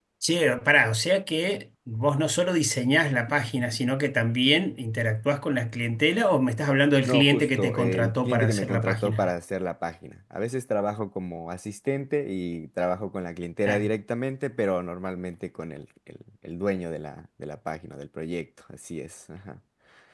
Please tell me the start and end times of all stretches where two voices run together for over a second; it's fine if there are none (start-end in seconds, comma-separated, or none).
7.0-9.3